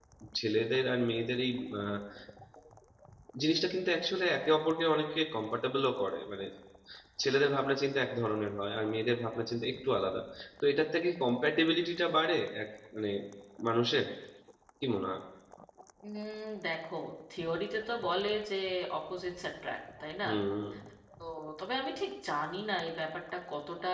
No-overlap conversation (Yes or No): Yes